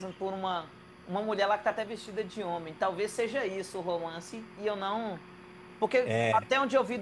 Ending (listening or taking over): listening